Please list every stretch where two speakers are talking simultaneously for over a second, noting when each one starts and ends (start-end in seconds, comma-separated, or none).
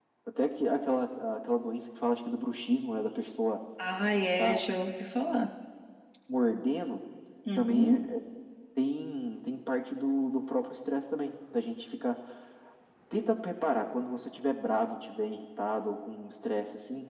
none